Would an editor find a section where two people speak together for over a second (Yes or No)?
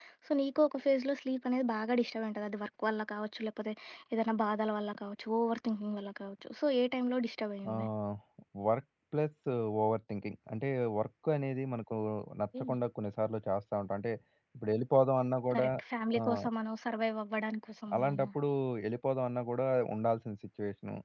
No